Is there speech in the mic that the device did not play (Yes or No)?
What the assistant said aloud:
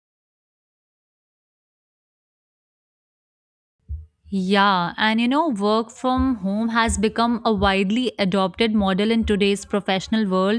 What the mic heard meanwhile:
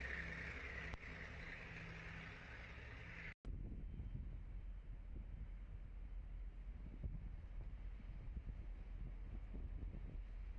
No